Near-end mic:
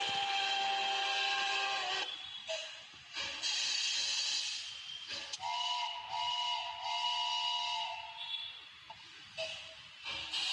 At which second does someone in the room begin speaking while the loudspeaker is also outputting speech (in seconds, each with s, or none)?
none